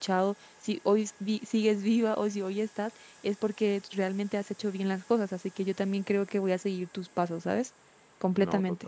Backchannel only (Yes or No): No